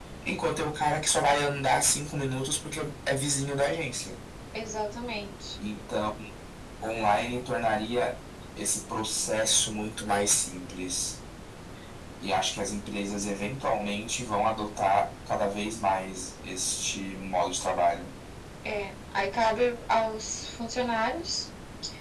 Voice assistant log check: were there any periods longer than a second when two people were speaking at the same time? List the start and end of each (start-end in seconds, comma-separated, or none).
none